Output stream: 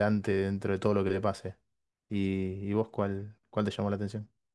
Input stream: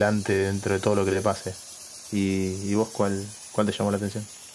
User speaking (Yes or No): No